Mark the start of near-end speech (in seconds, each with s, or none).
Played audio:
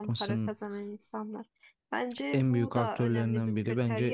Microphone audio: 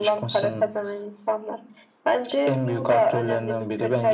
none